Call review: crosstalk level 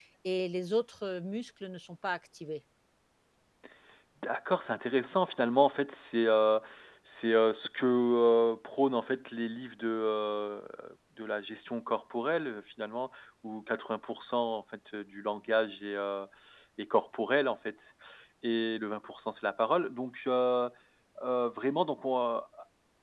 none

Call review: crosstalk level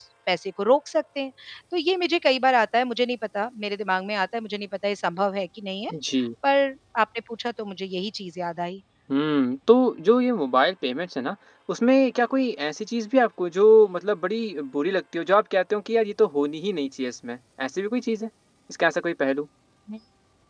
none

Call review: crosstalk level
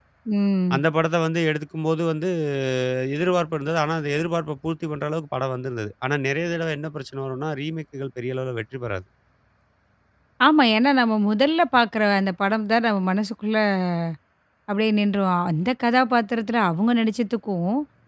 none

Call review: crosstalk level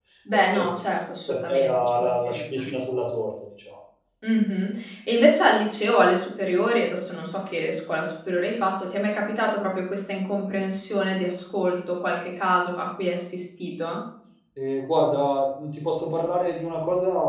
present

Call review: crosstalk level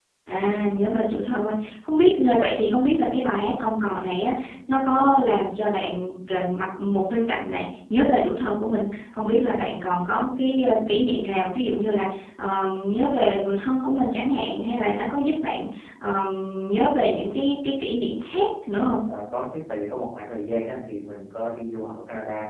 none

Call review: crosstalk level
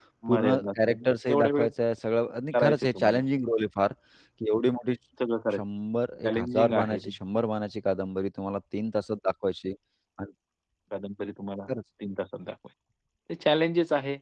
present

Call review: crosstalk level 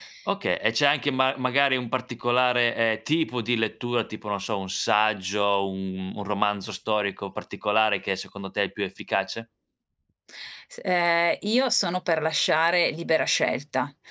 none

